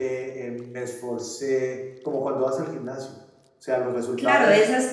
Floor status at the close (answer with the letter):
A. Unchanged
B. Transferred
B